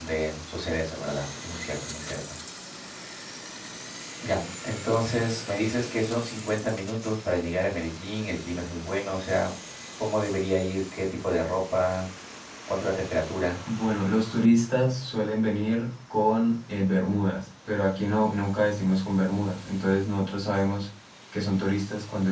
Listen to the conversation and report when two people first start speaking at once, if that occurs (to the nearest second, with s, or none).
none